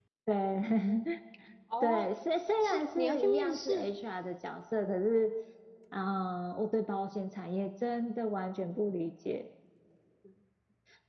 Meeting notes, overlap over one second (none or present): present